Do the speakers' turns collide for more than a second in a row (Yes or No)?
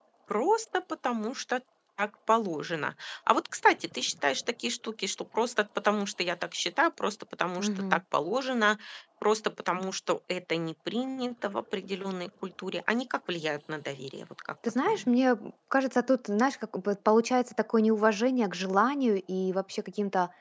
No